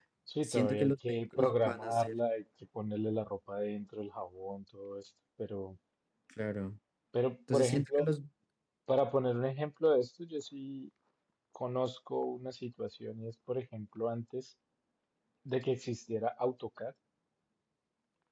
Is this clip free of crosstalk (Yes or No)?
No